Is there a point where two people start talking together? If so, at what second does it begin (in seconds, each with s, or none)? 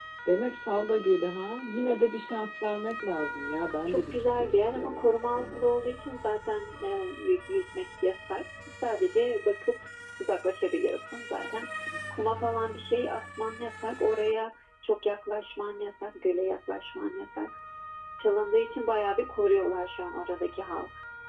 3.9 s